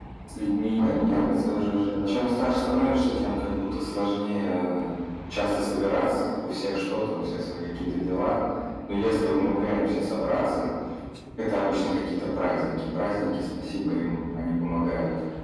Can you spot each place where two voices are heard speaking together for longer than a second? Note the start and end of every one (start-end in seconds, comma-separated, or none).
0.8-2.1